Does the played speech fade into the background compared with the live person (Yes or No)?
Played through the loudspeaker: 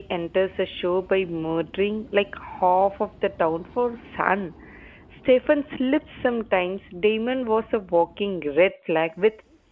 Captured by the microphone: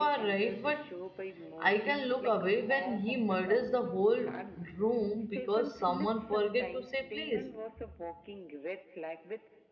Yes